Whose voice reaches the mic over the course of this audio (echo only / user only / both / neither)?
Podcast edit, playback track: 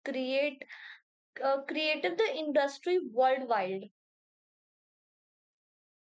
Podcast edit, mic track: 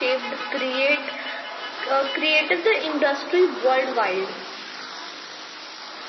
echo only